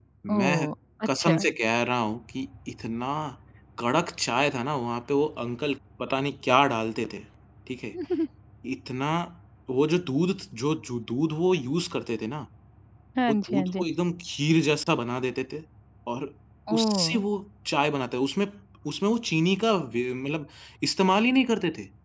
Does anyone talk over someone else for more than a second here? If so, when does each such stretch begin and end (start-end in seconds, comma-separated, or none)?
none